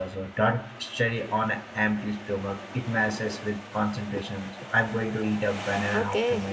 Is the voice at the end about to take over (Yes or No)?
Yes